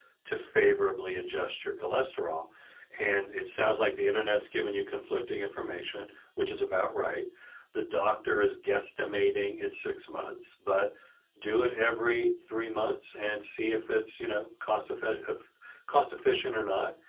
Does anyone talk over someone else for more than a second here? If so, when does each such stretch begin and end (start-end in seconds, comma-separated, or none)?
none